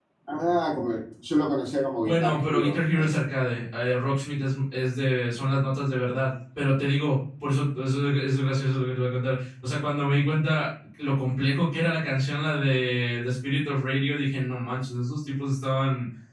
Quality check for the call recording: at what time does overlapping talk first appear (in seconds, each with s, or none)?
2.0 s